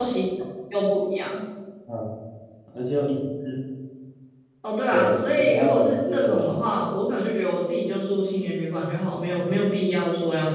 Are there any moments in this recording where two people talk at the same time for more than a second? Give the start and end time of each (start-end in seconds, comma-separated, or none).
4.9-6.5